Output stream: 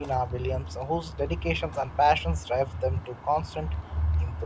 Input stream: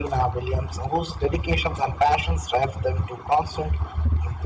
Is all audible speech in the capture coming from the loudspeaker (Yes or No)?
Yes